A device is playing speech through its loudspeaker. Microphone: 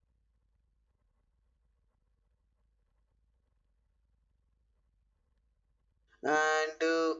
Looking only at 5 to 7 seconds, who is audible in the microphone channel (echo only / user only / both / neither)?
user only